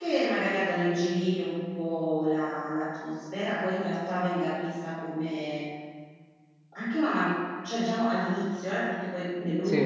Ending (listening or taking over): listening